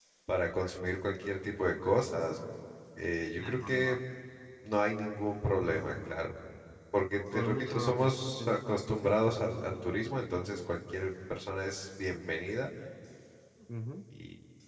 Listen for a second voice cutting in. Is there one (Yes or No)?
Yes